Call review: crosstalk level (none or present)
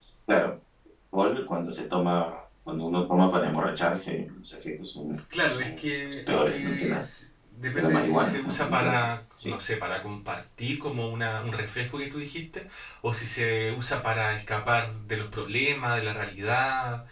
present